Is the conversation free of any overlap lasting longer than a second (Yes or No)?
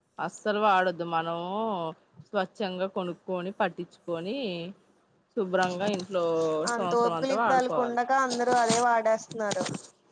No